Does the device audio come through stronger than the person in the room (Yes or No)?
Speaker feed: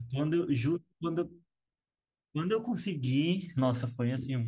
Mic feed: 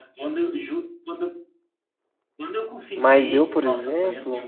No